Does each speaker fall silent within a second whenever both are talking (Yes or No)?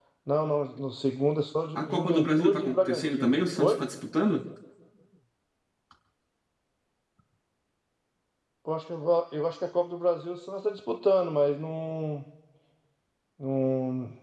No